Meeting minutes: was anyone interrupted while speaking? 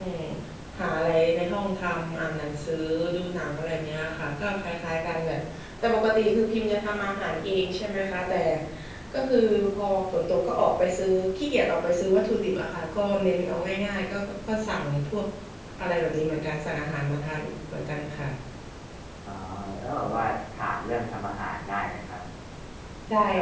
No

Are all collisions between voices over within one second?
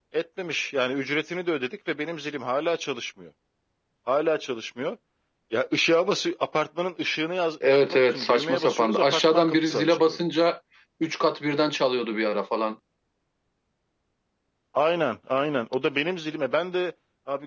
No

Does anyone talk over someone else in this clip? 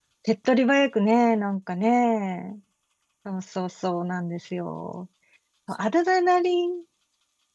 No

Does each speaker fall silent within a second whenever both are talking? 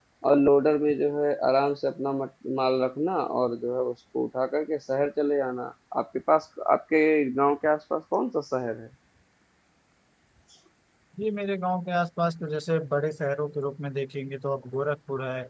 Yes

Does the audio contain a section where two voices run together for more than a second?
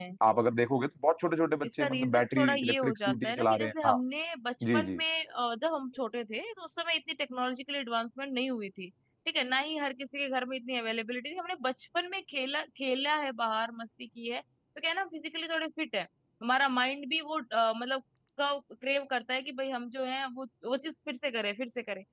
Yes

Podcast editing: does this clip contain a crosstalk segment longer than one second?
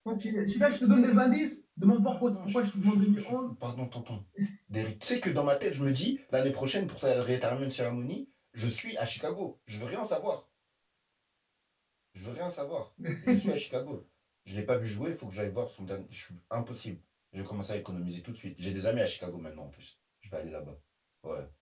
Yes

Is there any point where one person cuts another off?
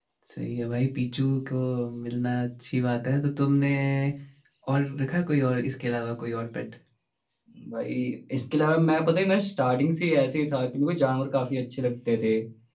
No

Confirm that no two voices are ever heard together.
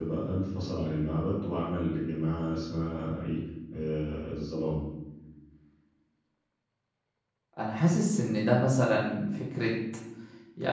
Yes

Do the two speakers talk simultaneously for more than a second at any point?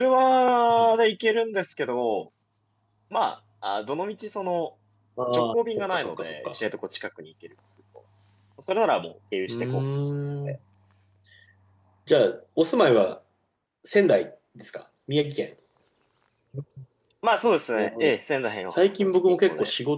Yes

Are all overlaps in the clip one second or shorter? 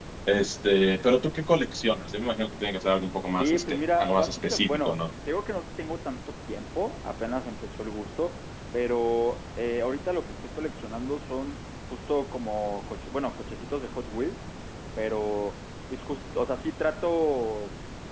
No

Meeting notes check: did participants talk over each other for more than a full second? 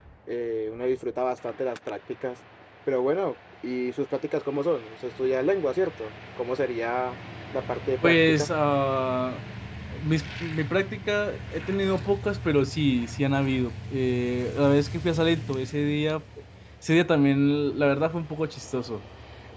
No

